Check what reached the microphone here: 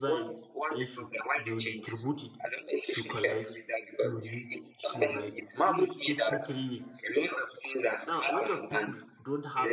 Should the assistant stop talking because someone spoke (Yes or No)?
Yes